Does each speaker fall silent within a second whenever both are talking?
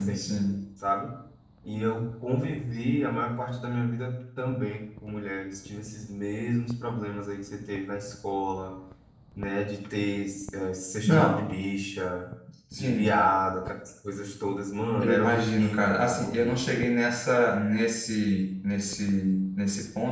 No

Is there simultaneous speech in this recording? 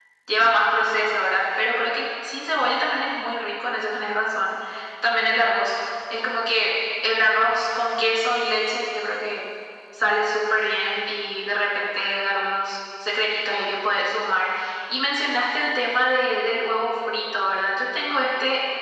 No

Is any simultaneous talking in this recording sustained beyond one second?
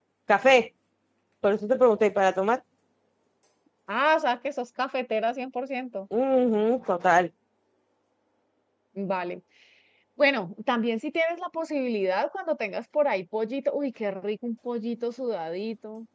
No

